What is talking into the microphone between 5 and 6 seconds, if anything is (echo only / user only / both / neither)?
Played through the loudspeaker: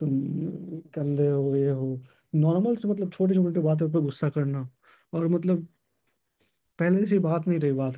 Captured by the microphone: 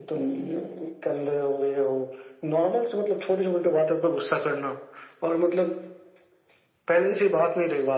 echo only